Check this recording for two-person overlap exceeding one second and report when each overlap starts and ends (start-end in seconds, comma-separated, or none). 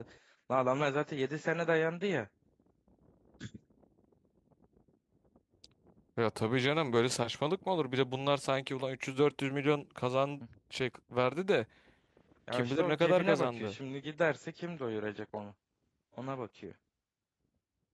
12.5-13.8